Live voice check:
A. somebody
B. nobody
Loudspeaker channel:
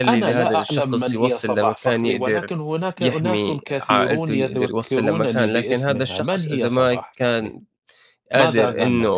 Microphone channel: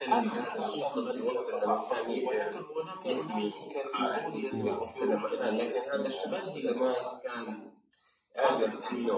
A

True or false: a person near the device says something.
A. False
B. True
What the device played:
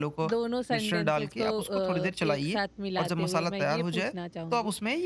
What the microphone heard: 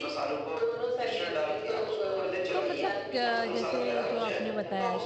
B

